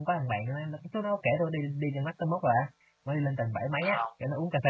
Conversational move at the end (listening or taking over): listening